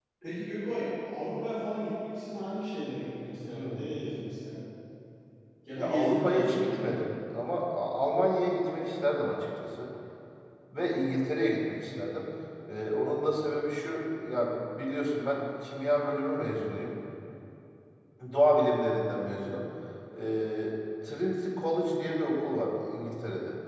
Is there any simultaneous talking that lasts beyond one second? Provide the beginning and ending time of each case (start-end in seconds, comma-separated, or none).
5.8-7.1